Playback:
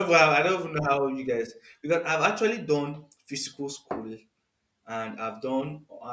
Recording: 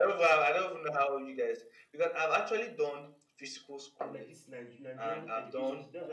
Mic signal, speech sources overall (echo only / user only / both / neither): both